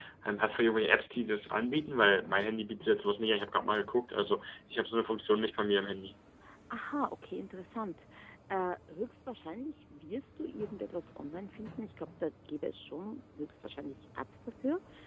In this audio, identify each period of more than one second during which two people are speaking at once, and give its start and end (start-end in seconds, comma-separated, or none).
none